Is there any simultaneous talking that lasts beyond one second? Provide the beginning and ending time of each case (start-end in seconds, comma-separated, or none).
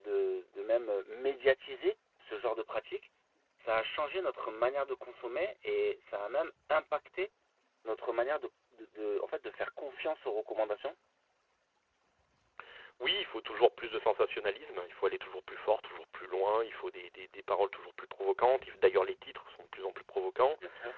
none